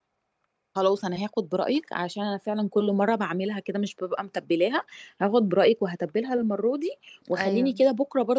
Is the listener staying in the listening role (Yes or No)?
Yes